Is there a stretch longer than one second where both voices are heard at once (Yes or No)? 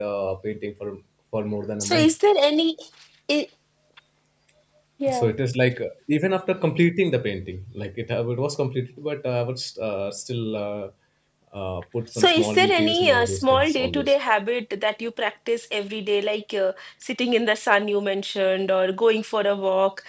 Yes